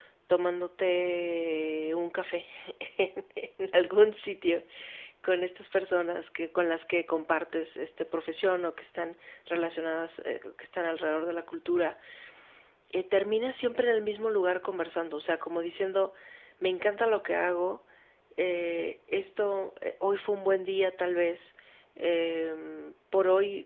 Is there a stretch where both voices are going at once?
No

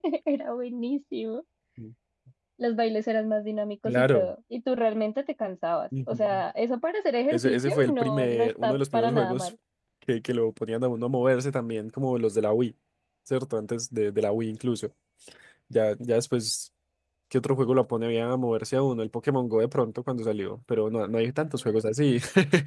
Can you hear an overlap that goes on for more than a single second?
Yes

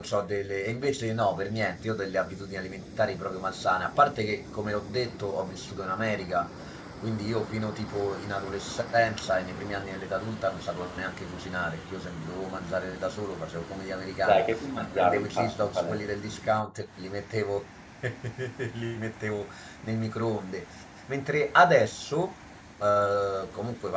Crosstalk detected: Yes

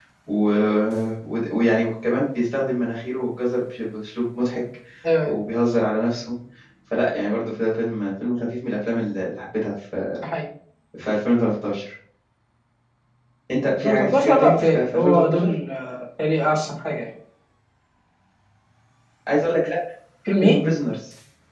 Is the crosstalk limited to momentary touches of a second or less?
No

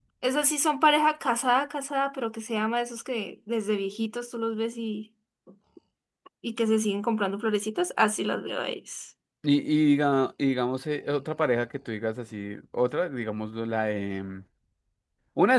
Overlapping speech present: No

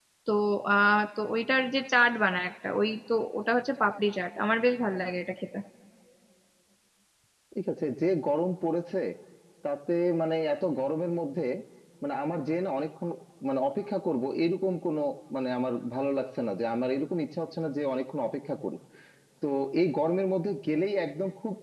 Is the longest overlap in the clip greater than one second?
No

